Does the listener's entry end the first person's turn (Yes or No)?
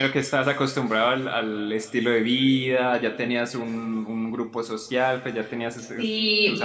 Yes